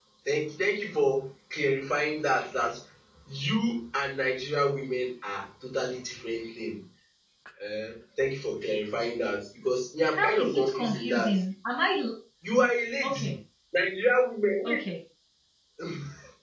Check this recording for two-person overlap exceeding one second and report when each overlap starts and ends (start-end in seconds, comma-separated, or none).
10.1-11.4